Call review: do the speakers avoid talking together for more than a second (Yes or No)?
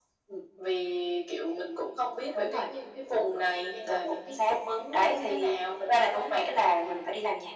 No